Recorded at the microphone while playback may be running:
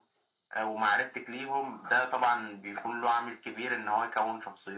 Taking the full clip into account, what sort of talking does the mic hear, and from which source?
echo only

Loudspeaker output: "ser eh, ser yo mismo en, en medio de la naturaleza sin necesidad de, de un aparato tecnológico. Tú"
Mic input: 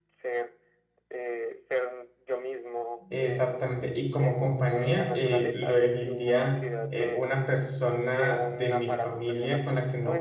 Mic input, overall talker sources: both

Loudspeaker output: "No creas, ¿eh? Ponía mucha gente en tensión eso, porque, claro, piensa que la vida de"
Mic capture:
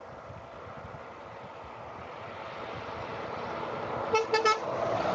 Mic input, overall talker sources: neither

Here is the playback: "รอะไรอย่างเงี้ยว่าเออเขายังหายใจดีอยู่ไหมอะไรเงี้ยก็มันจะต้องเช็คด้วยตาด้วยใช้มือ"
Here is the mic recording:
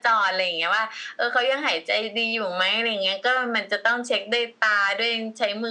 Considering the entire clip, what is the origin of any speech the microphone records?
echo only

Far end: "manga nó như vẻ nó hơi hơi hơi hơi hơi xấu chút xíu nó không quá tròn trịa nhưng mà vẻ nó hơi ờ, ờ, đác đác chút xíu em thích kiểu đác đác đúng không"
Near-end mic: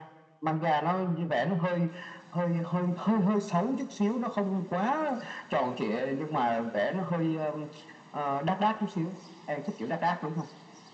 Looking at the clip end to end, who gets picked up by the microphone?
echo only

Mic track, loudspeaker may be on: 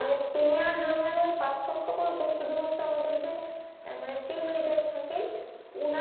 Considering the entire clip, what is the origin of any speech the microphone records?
echo only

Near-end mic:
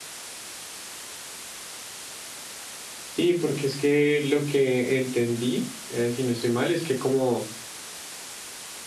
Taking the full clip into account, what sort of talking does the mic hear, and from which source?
user only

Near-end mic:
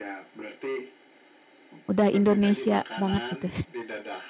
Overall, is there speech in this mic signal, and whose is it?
both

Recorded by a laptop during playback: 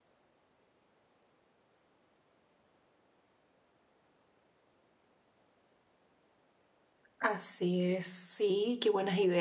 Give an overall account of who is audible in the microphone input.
user only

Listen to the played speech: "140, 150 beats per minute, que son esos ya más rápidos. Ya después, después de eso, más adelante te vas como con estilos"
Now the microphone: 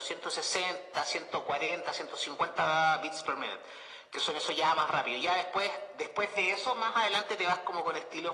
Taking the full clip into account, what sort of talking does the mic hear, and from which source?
echo only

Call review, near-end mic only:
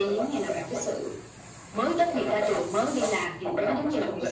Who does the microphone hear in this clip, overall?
echo only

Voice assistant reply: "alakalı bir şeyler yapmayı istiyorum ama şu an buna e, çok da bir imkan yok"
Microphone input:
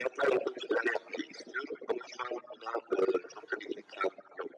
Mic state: echo only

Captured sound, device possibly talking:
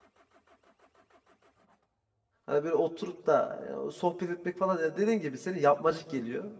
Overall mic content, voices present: user only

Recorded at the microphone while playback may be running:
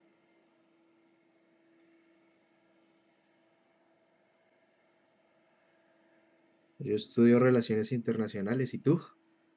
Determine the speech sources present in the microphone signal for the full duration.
user only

